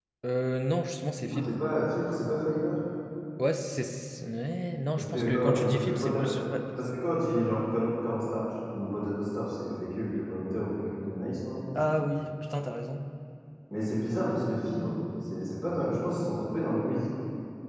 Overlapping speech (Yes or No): Yes